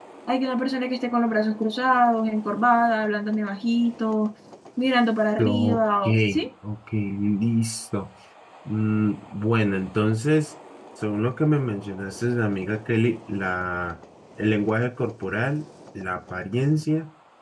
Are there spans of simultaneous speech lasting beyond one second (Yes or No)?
No